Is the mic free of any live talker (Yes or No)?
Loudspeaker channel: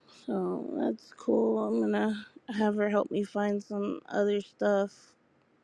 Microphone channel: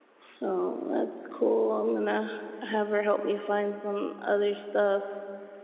Yes